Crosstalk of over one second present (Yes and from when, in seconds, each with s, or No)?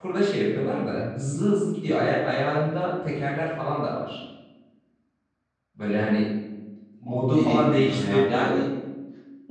Yes, from 7.1 s